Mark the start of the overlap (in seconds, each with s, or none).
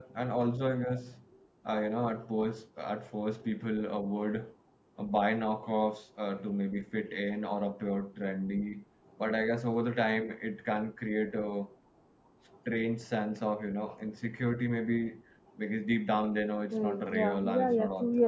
16.7 s